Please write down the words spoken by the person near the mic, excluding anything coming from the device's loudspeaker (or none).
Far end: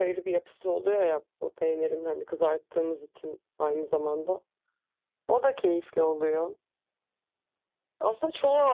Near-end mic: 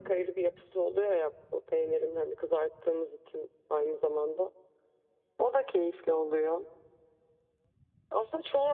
none